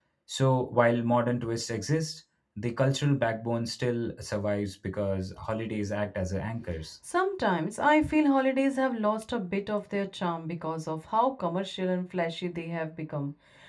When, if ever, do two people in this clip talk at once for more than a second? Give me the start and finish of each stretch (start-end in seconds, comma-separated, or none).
none